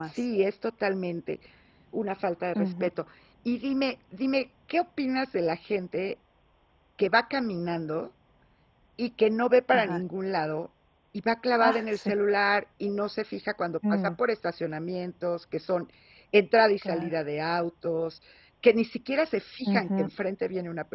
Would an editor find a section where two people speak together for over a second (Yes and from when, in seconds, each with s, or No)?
No